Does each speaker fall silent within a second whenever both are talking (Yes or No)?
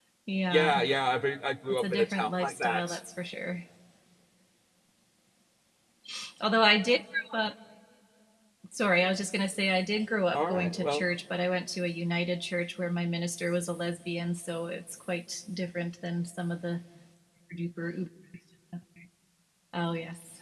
No